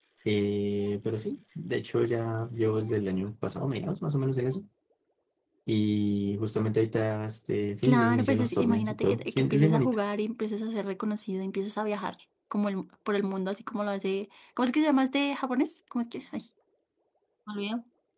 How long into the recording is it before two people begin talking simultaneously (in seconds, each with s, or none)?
7.8 s